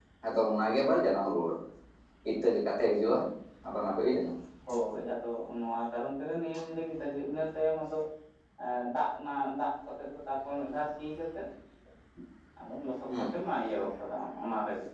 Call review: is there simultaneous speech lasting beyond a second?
No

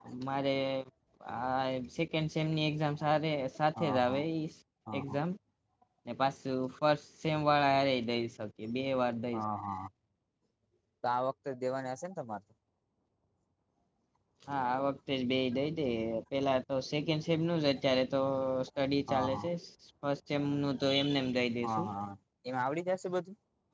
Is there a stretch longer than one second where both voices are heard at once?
No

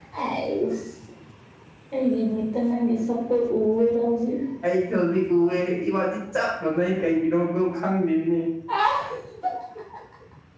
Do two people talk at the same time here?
No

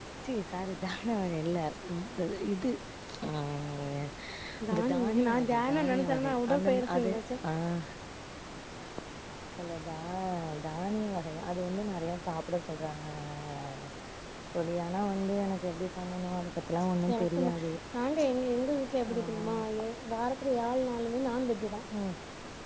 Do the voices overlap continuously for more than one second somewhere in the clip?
Yes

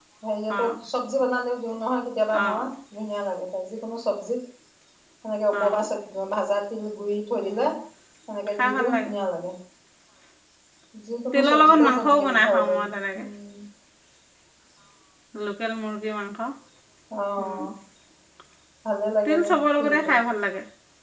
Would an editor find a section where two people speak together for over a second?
Yes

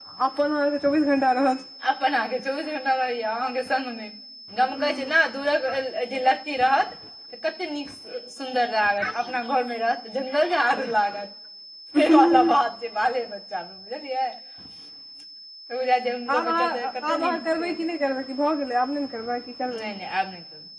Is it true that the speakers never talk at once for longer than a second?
No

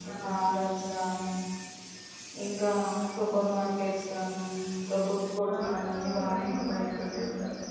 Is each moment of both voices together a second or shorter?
No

